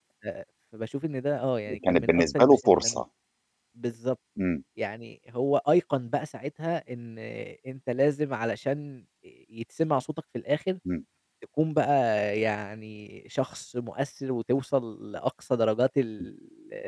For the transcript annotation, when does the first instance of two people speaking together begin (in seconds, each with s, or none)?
1.7 s